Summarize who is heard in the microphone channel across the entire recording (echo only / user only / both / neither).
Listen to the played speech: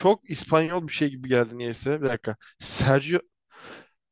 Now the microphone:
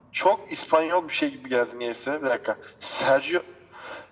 echo only